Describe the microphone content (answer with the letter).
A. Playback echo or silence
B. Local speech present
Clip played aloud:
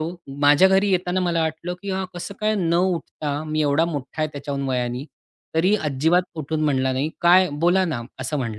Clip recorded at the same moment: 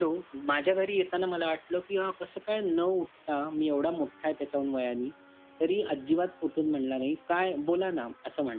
A